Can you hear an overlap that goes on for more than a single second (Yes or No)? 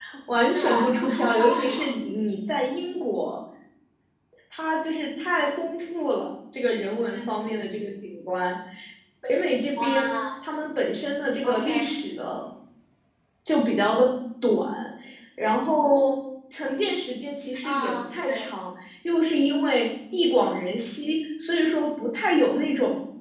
Yes